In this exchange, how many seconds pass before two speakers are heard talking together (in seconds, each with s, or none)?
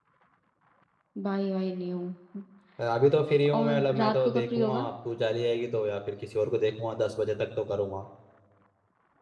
3.6 s